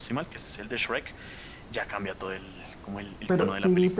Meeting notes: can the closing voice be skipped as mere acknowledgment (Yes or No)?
No